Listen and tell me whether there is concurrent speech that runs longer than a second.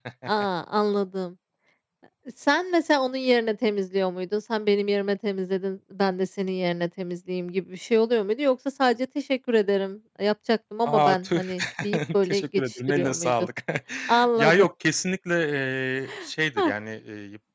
Yes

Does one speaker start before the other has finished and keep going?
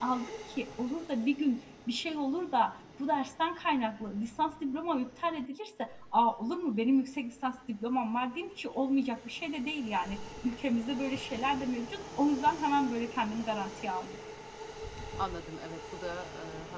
No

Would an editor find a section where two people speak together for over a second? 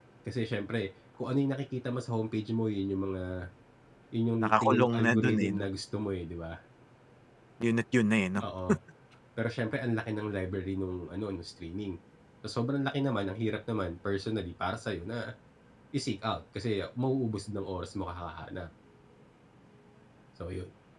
Yes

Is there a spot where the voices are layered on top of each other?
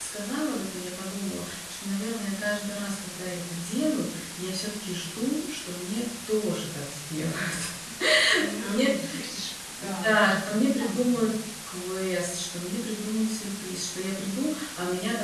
Yes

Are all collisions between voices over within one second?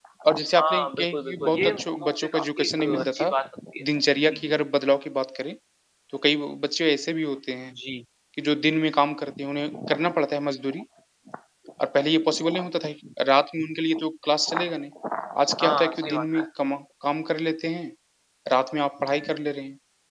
No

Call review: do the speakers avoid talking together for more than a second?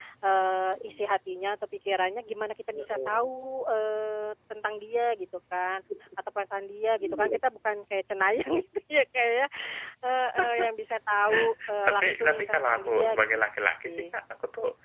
No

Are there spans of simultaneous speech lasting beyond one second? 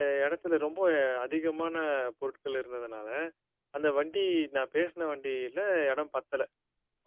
No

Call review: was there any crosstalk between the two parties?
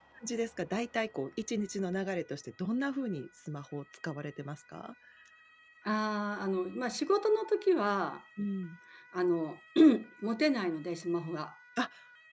No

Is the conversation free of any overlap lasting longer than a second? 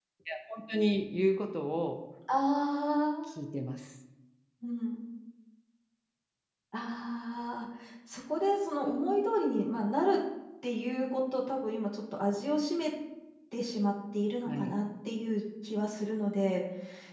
Yes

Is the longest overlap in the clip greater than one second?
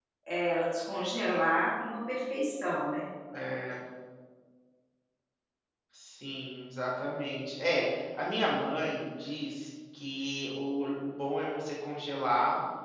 No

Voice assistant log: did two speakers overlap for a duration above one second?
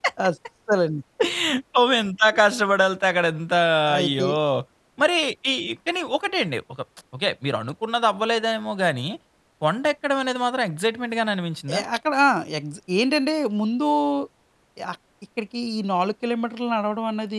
No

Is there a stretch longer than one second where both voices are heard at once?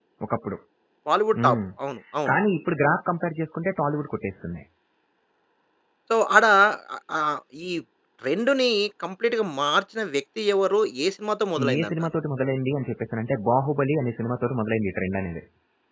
No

